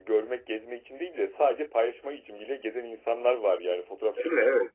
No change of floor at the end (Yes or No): Yes